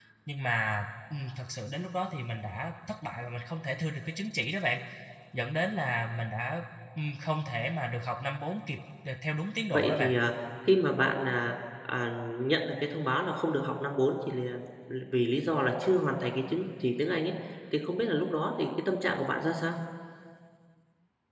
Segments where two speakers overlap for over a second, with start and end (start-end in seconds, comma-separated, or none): none